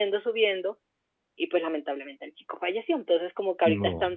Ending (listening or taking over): listening